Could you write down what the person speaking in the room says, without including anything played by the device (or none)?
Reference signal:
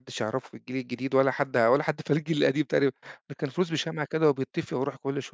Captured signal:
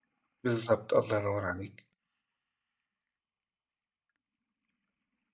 بالضبط، الله ينور عليك.